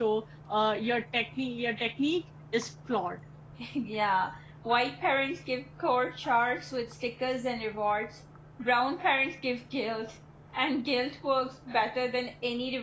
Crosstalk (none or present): none